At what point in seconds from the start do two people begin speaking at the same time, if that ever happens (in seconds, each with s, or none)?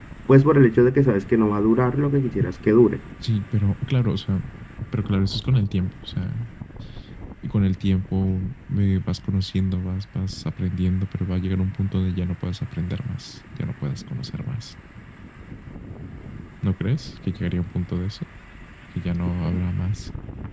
none